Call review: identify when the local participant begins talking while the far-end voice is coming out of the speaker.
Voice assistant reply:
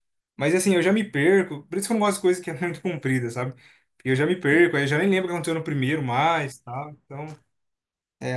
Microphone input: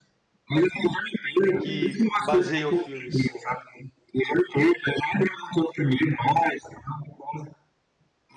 2 s

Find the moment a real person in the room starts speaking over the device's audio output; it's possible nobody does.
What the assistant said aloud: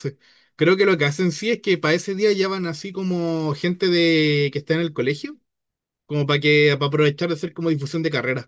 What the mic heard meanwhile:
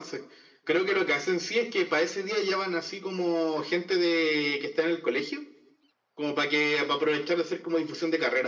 none

